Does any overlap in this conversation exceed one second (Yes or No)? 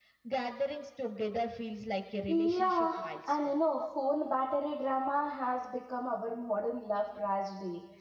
Yes